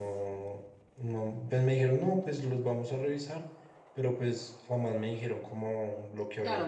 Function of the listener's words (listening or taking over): taking over